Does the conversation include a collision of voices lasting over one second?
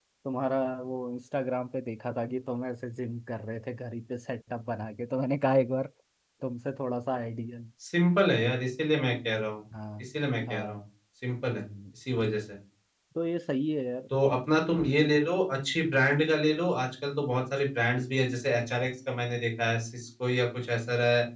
No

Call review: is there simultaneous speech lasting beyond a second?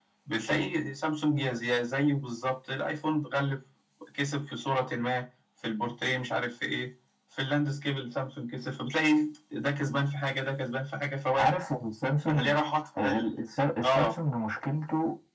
No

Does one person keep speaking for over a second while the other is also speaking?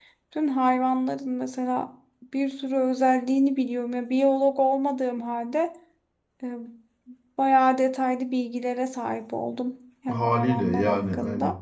Yes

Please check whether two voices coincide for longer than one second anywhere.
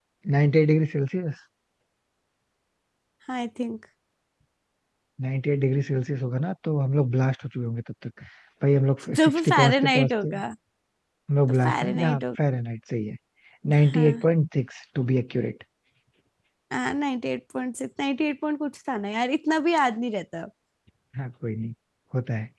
Yes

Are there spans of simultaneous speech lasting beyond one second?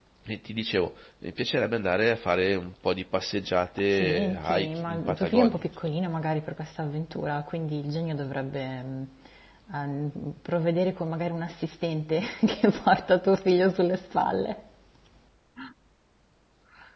Yes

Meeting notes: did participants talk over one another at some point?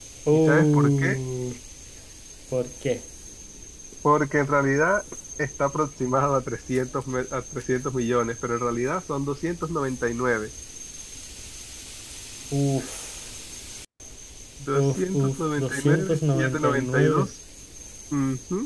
Yes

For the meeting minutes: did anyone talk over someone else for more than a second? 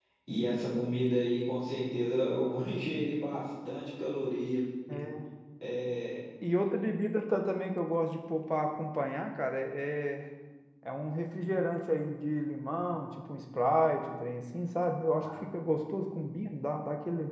No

